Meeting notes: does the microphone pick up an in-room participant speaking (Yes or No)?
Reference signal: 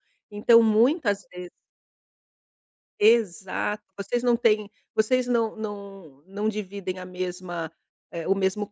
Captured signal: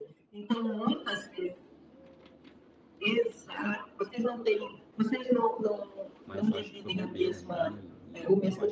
Yes